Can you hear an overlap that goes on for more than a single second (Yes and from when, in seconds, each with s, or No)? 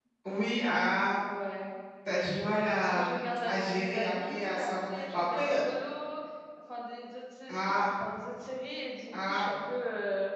Yes, from 2.3 s